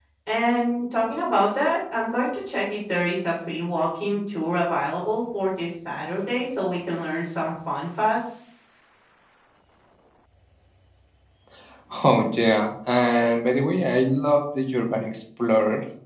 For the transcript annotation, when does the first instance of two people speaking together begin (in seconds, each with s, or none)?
none